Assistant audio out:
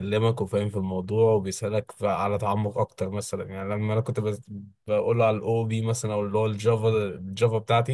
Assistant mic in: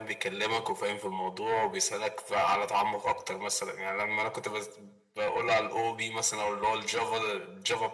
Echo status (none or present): present